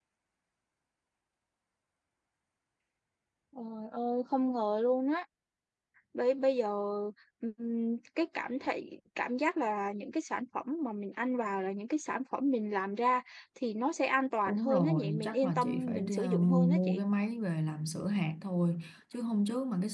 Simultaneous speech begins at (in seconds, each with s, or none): 14.5 s